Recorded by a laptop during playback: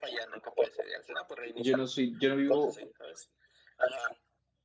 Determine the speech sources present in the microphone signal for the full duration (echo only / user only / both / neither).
both